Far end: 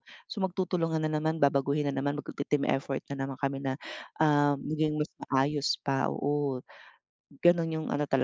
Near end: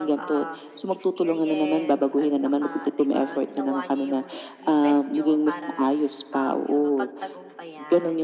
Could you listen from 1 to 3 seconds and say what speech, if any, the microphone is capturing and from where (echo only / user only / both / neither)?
both